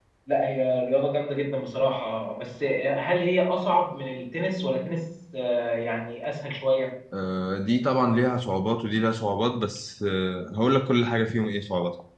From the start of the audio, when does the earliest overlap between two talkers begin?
none

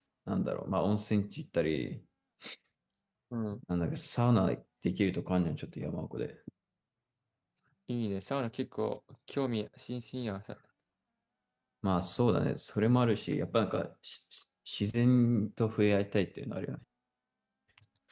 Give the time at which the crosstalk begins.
none

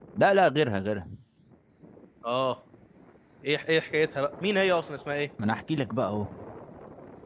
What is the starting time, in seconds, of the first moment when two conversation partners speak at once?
none

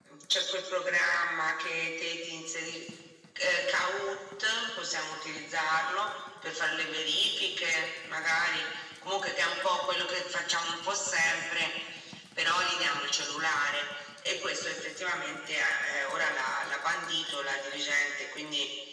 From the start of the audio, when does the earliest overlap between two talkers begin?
none

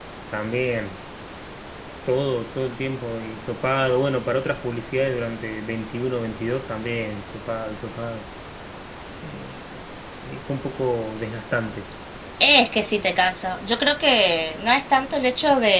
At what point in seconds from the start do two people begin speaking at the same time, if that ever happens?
none

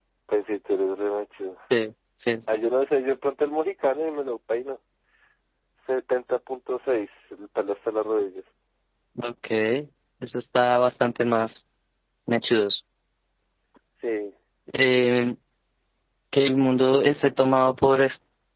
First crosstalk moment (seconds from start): none

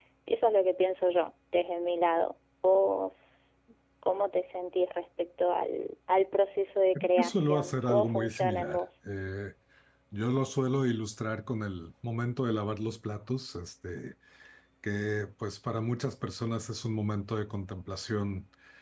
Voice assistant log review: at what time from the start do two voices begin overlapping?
7 s

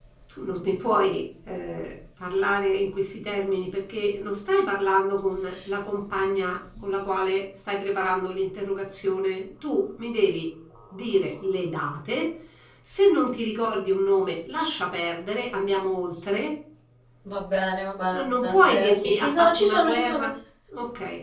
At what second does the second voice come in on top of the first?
18 s

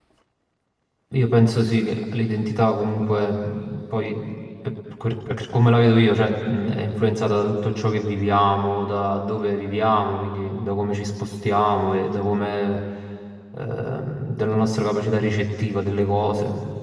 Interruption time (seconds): none

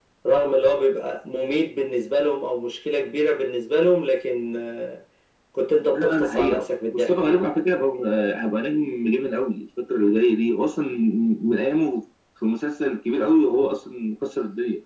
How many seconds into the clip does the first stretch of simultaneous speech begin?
6 s

